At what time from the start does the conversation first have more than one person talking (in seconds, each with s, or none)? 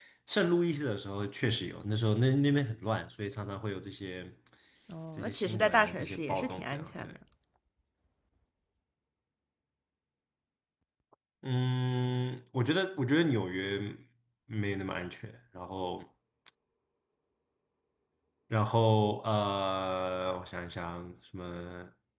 5.2 s